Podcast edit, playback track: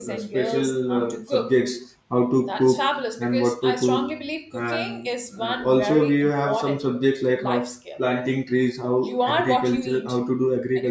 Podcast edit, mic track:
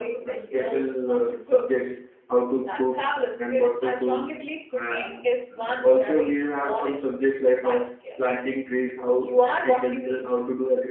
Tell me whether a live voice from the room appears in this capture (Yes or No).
No